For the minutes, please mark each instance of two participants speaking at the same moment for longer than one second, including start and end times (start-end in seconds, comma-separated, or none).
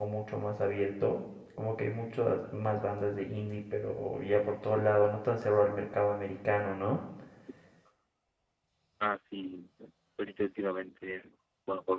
none